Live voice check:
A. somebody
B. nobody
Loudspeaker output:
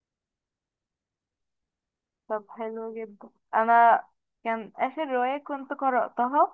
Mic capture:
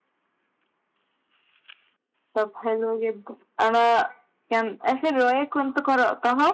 B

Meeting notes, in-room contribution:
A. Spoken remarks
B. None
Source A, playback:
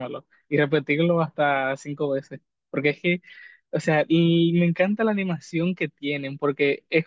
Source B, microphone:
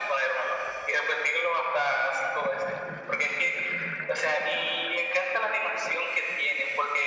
B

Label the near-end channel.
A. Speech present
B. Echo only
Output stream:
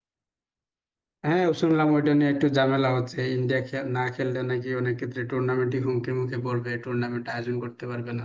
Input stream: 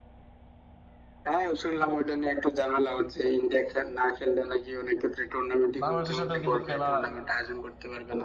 A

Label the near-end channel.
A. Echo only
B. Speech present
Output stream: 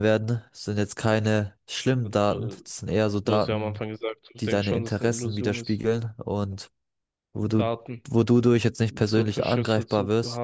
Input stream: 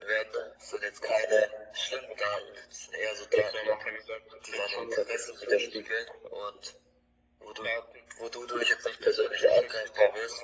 A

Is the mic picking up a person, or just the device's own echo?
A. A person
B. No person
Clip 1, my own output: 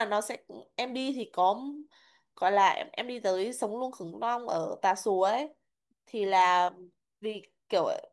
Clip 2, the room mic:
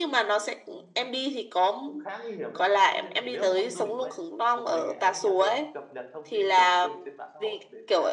A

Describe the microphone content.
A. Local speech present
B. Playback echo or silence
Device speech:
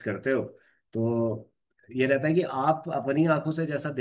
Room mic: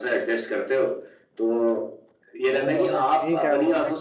A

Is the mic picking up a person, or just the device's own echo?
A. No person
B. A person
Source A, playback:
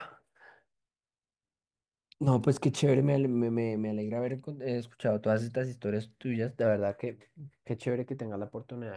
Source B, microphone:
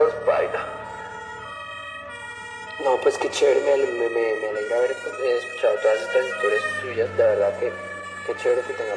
A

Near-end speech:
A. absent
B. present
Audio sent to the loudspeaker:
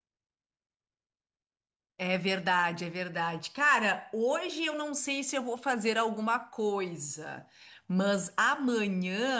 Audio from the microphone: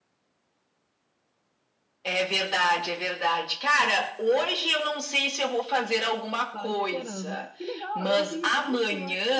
B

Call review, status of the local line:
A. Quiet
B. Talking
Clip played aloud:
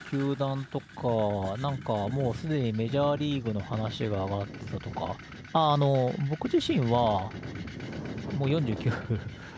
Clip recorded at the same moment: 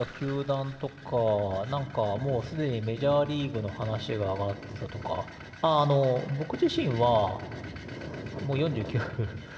A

